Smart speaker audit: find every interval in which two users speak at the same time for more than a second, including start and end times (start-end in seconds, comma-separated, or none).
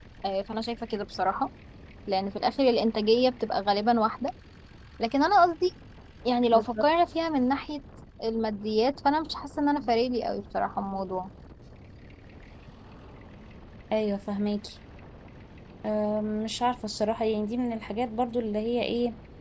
none